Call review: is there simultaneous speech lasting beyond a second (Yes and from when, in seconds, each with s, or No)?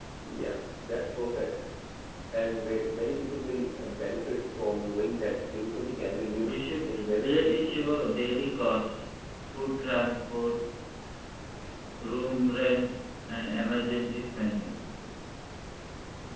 Yes, from 6.4 s